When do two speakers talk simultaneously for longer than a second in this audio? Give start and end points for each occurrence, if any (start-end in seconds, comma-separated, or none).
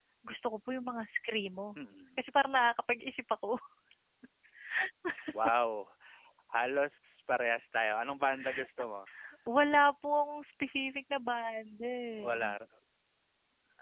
none